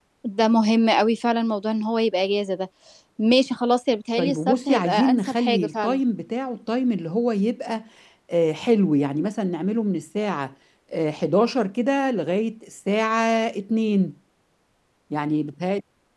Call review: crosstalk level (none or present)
present